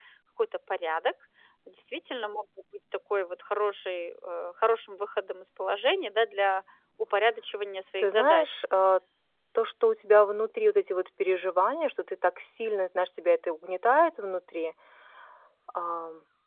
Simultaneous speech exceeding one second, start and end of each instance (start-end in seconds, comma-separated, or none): none